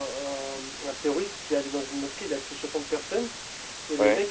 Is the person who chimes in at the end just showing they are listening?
Yes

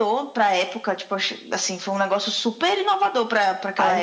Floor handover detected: Yes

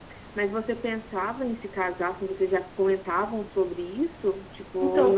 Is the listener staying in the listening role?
No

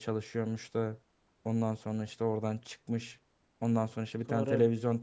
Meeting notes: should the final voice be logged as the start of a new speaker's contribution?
No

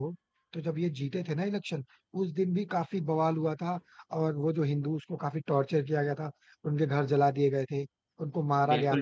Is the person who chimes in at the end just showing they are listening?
No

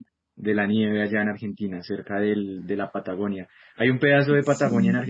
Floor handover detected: No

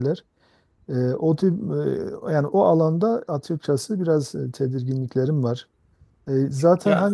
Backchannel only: Yes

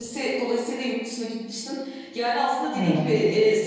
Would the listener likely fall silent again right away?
Yes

